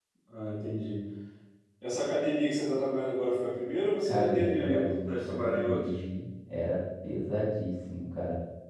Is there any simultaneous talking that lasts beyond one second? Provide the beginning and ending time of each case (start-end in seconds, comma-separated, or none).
4.0-5.8